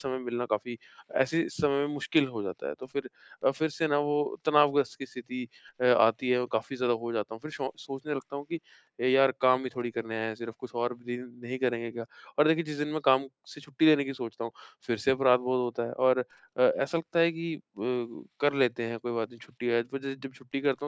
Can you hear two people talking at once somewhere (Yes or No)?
No